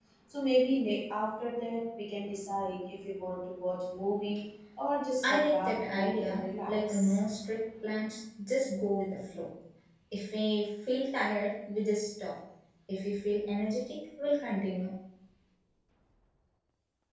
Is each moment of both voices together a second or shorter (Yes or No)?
No